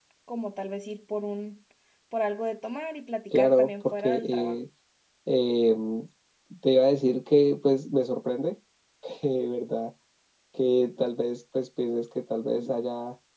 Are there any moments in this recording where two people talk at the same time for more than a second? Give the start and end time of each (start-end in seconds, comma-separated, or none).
3.3-4.5